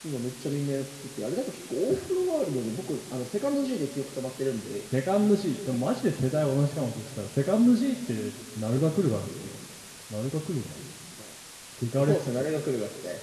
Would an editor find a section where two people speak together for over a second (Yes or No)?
No